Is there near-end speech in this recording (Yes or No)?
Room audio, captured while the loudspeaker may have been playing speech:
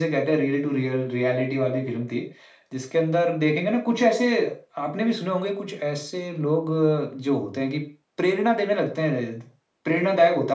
No